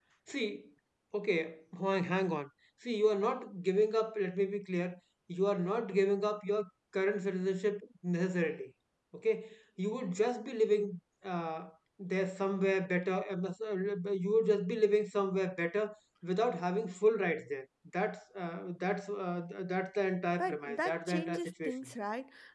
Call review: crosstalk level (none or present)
present